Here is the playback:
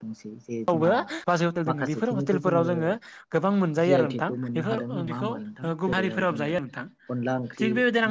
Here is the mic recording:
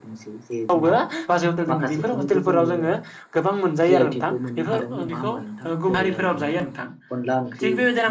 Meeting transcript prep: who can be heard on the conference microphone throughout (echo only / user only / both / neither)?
echo only